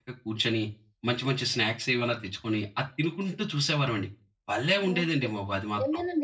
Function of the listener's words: taking over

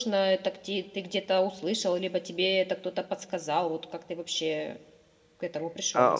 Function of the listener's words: taking over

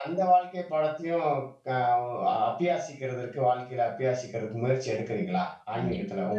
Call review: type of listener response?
taking over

